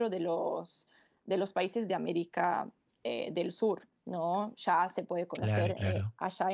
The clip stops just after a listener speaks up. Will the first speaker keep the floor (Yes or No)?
Yes